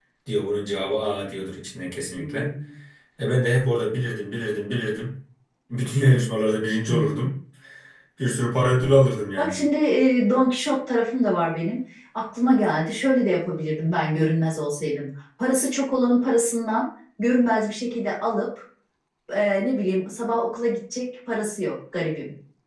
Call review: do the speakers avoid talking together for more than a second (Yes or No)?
Yes